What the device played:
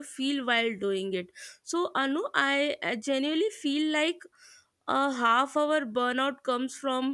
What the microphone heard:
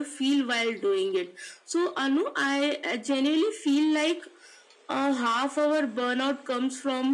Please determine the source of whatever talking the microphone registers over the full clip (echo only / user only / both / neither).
echo only